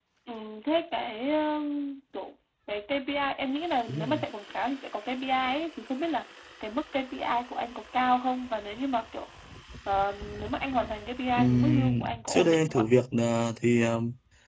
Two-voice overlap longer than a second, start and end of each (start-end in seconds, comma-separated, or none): 11.4-12.8